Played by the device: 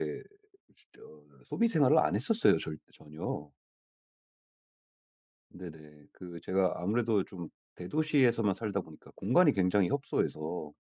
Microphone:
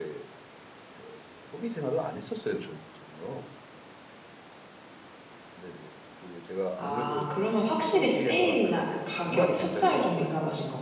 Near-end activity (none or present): present